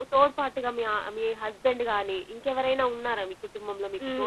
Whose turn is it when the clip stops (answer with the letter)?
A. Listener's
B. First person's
A